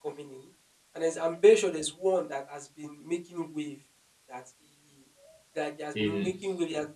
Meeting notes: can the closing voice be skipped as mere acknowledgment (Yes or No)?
Yes